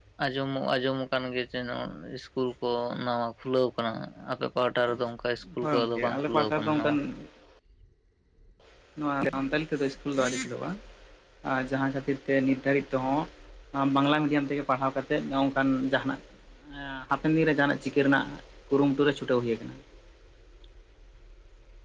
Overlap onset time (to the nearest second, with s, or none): 6 s